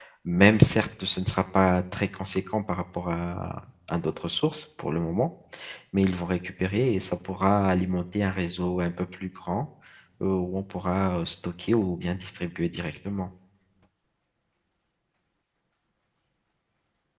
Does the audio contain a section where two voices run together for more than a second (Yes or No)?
No